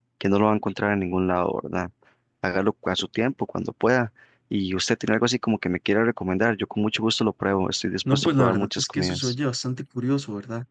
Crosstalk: present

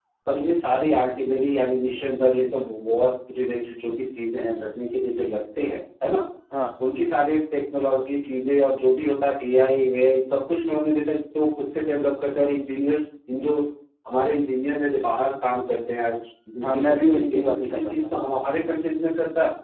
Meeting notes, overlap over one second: present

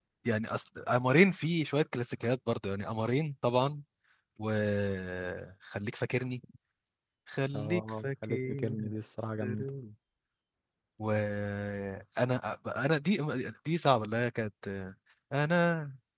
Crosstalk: present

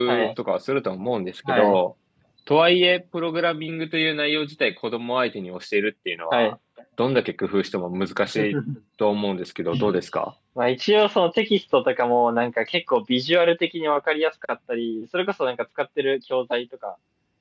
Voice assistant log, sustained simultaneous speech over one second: none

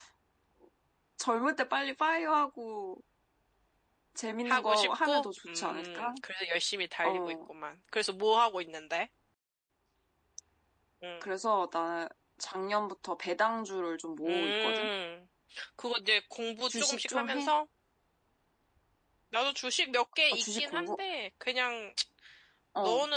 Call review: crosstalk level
present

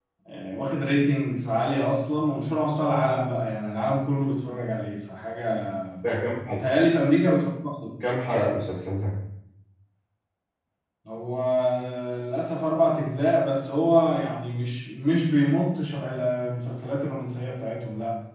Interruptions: none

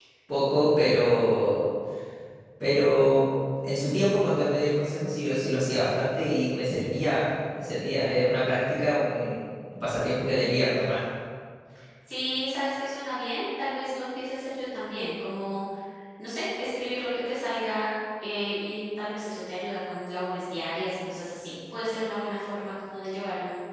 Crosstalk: none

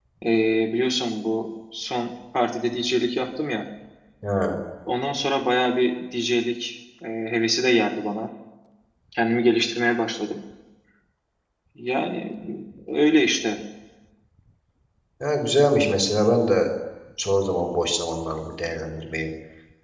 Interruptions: none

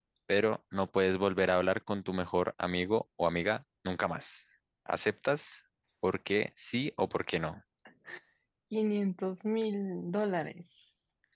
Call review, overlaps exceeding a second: none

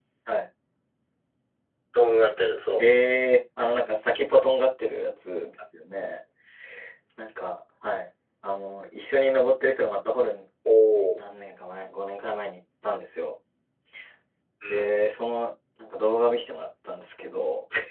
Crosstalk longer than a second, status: none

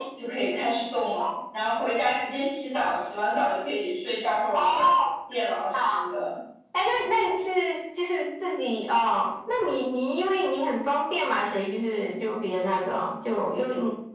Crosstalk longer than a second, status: none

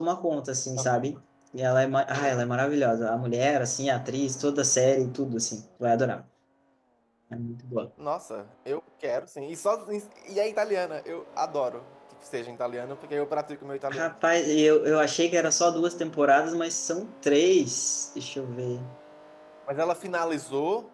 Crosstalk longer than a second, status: none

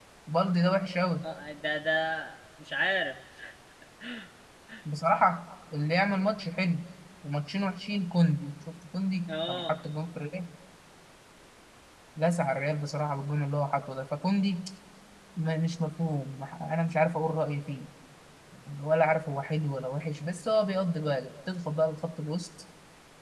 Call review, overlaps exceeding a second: none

